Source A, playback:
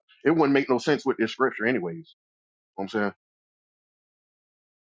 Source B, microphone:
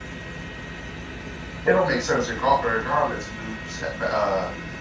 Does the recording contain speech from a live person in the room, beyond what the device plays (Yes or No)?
Yes